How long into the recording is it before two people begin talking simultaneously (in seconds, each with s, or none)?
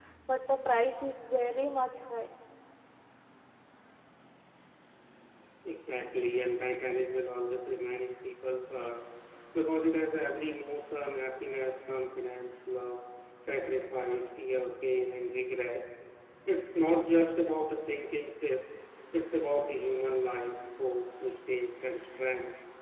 none